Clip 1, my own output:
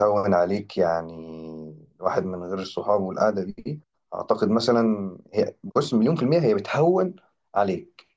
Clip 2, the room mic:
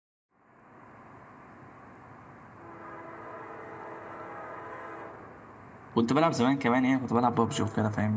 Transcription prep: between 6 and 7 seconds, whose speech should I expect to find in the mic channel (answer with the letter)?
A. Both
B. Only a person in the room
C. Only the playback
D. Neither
B